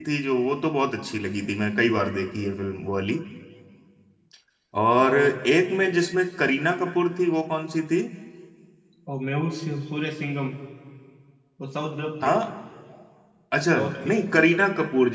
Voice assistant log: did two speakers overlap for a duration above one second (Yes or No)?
No